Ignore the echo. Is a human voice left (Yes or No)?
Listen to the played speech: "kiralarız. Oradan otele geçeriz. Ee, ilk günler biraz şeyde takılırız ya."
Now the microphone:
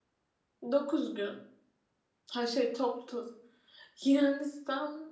Yes